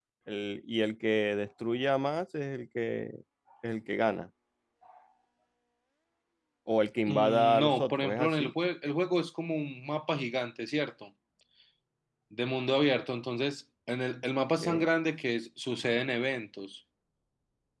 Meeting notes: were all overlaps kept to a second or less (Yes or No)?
No